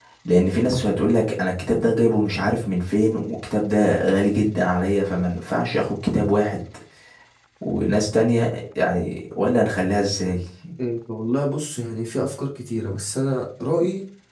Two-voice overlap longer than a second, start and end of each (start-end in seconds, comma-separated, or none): none